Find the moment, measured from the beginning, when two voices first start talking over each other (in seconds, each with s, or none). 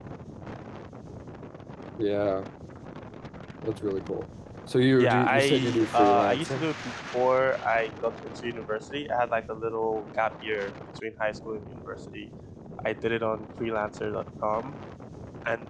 5.0 s